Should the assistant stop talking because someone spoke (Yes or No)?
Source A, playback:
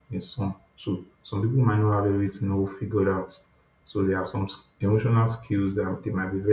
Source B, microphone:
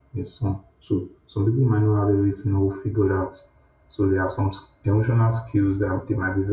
No